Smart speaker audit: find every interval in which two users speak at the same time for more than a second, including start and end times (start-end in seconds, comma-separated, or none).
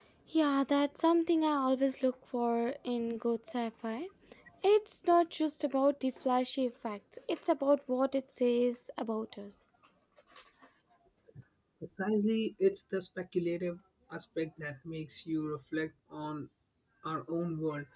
none